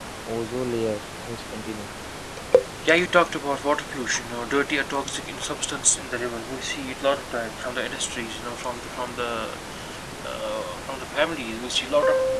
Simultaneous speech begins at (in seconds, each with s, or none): none